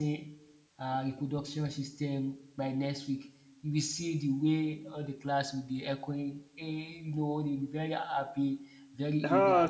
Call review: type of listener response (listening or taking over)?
taking over